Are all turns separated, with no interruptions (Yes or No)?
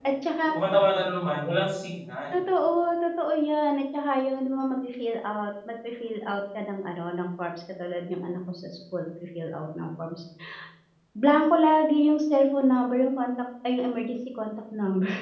Yes